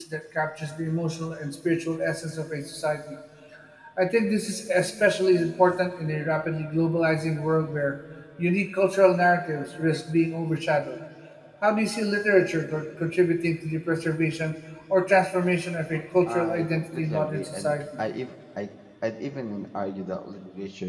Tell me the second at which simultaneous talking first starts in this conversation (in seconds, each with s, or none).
16.2 s